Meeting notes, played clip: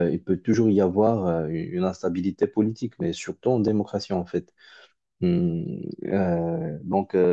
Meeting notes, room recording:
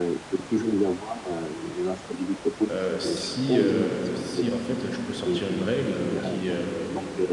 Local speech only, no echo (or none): euh, si, euh, si en fait je peux sortir une règle qui, euh,